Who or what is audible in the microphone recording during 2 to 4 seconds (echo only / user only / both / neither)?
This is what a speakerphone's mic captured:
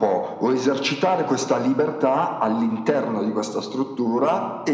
echo only